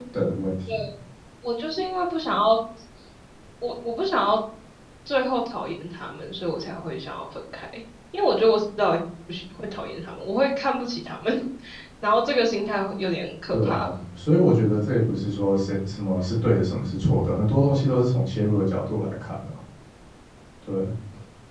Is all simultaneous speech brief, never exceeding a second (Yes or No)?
Yes